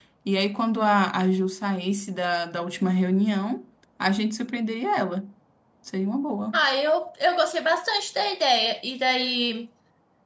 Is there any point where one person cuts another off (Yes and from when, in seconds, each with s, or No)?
No